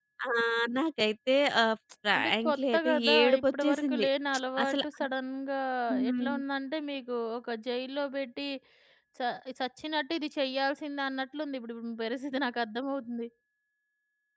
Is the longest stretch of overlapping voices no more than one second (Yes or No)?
No